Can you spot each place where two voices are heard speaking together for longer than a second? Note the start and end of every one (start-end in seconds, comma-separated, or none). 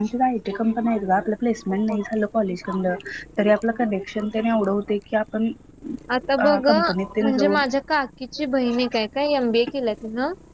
none